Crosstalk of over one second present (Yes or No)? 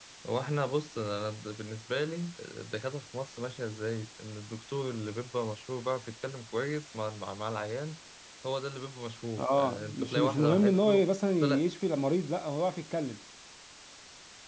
Yes